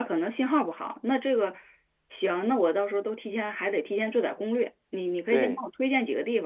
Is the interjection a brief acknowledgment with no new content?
Yes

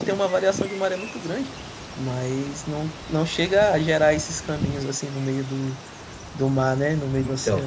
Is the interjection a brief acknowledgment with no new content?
No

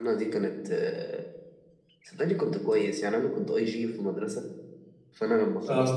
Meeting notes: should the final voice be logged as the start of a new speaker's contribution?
No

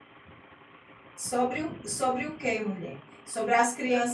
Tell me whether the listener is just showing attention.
Yes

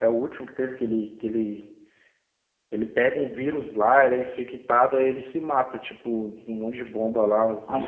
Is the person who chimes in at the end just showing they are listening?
No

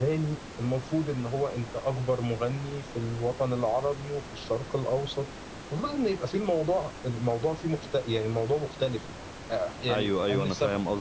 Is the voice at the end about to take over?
Yes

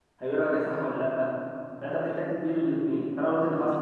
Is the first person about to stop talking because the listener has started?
No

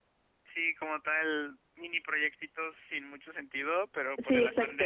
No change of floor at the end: Yes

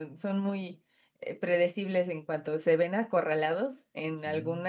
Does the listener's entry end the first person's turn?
No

